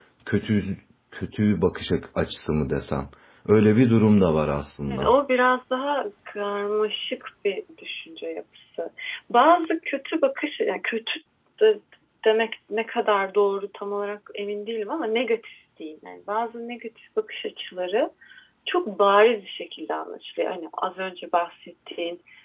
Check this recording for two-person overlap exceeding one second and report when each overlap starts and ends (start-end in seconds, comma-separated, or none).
none